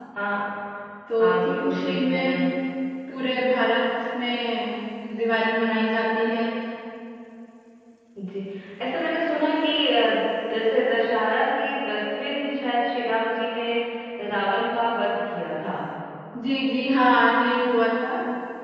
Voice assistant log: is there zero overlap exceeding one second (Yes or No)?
No